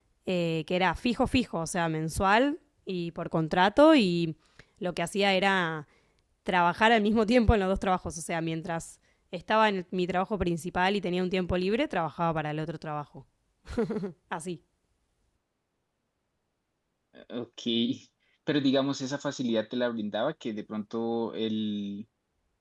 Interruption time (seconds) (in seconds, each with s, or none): none